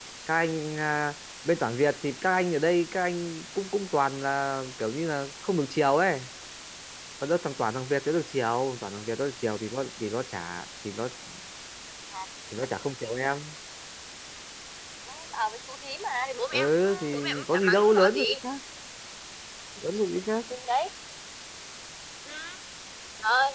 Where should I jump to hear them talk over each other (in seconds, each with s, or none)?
16.5 s